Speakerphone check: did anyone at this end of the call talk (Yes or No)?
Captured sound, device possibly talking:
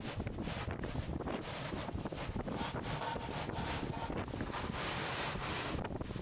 No